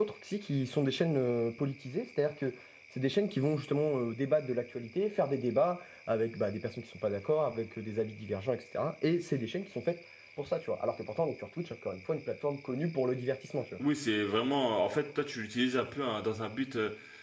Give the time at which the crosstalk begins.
none

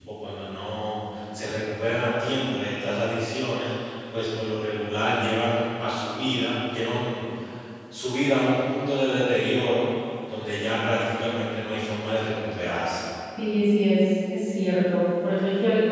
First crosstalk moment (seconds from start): none

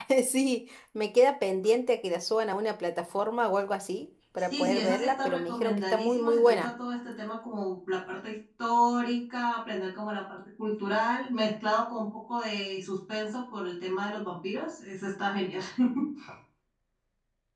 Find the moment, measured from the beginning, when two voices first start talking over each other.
4.4 s

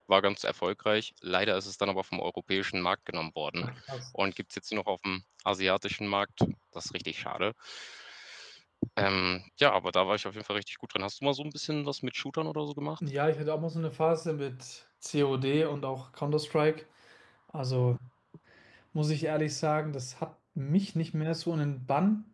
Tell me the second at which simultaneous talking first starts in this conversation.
none

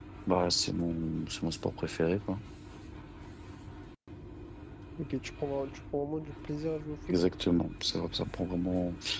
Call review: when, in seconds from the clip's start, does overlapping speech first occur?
none

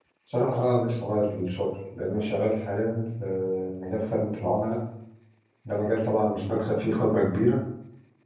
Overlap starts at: none

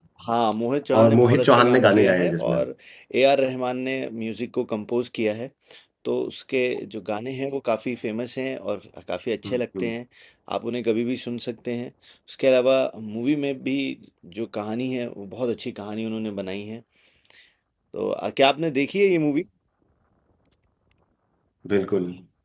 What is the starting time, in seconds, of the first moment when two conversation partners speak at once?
1.0 s

